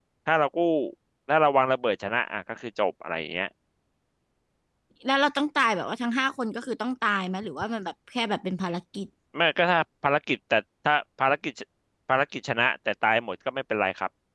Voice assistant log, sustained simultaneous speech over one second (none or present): none